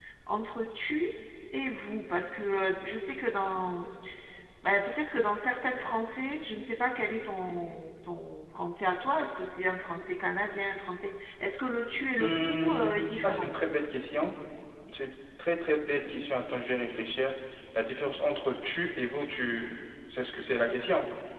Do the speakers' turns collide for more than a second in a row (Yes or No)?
Yes